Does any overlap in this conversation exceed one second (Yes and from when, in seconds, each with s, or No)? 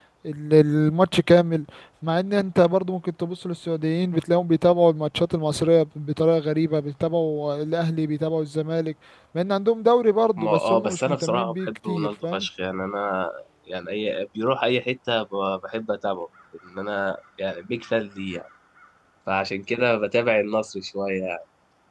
Yes, from 10.4 s